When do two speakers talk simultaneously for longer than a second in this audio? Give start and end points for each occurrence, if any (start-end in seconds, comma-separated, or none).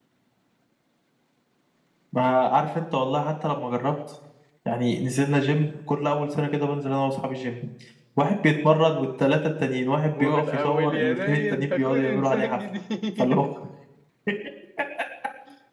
10.2-12.6